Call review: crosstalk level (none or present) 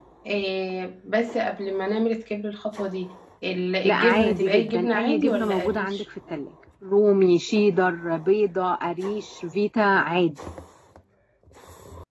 present